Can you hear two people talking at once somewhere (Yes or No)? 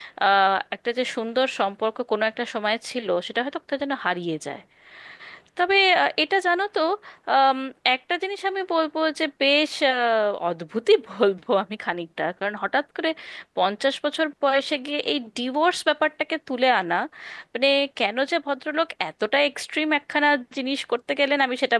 No